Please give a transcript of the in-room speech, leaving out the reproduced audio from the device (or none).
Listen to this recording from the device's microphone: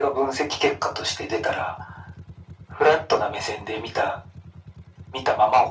none